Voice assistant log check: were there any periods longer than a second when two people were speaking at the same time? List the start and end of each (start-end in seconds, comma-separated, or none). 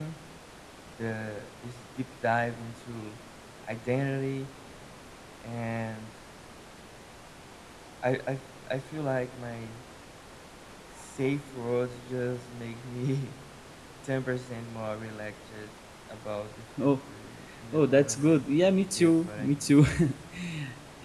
17.7-19.7